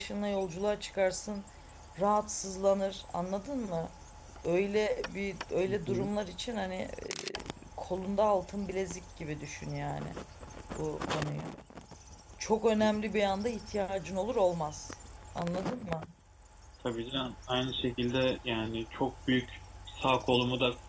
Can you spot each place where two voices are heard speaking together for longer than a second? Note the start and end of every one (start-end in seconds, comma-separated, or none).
none